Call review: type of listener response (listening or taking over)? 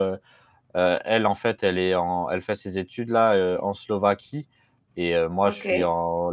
listening